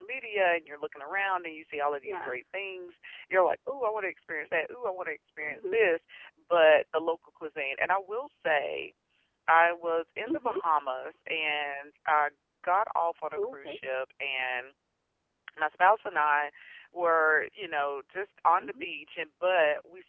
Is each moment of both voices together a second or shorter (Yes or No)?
Yes